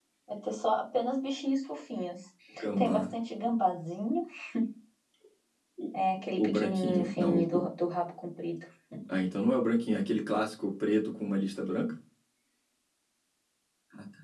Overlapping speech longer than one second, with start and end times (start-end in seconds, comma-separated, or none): 6.4-7.6